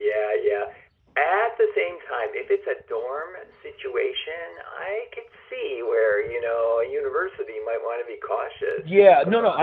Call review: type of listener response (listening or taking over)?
taking over